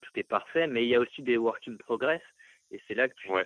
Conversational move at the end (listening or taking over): listening